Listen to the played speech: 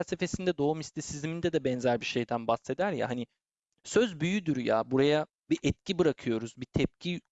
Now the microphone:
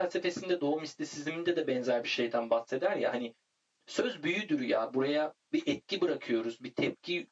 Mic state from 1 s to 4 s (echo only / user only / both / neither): echo only